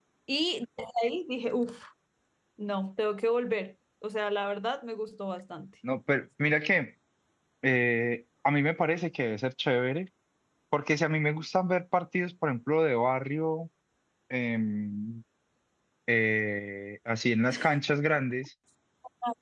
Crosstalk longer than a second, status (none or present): none